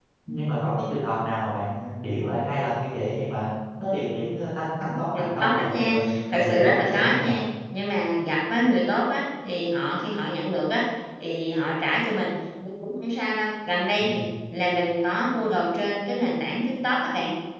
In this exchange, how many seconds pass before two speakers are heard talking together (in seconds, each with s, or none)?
5.1 s